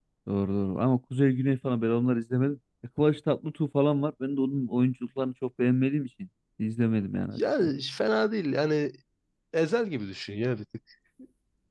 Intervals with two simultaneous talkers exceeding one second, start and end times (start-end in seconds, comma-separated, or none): none